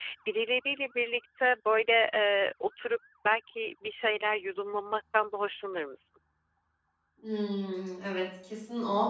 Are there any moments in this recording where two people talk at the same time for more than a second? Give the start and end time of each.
none

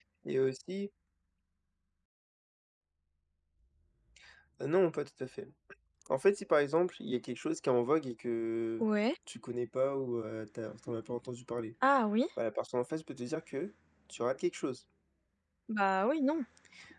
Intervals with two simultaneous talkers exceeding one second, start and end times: none

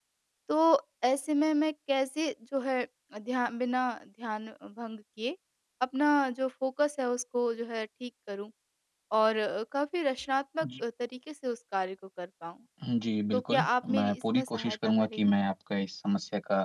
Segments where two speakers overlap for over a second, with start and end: 13.3-15.3

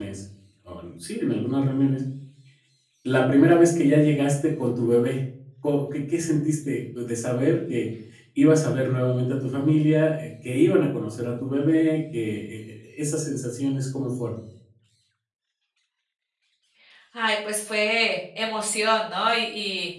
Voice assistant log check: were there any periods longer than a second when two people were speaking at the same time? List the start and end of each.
none

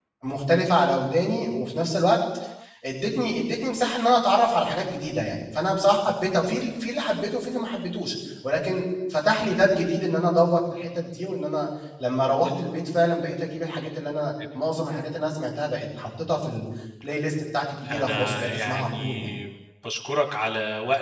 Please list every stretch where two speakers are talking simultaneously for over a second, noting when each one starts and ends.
17.9-19.3

